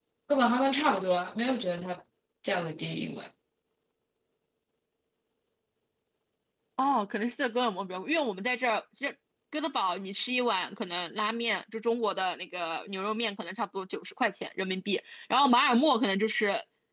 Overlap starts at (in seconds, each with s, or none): none